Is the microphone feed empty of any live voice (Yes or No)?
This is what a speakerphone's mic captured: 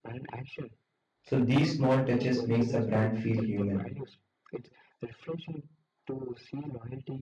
No